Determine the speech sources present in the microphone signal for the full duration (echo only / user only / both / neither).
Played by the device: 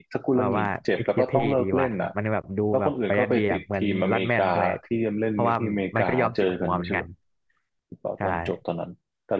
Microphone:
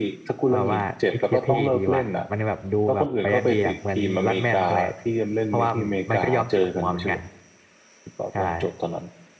echo only